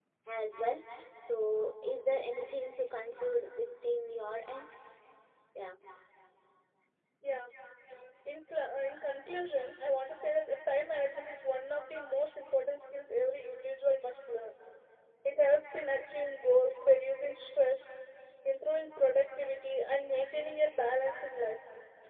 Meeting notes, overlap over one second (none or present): none